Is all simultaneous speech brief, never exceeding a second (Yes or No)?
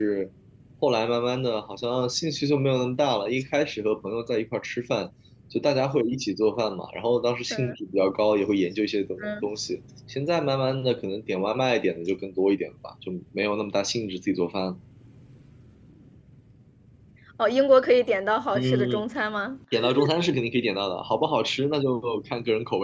Yes